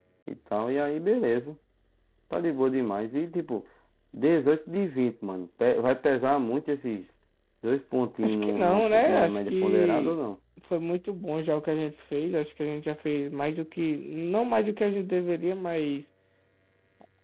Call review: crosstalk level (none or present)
present